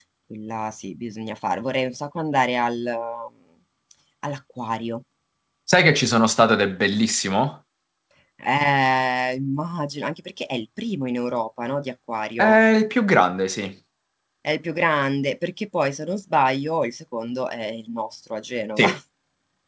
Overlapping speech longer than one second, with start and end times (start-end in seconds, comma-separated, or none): none